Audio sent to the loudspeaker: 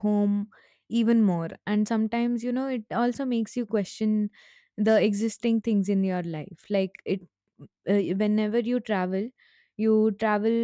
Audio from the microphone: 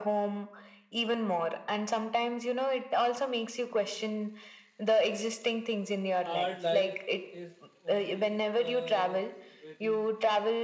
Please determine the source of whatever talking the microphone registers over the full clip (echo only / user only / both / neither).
both